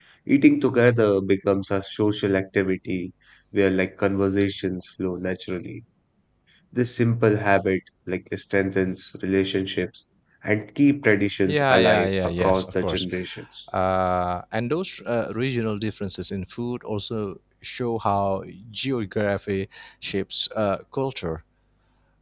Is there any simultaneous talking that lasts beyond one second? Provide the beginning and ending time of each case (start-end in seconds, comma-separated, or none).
11.5-13.1